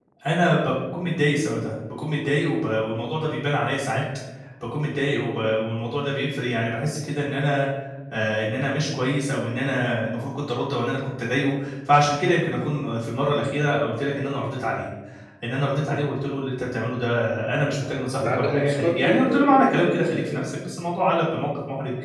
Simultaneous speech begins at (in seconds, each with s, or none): 18.2 s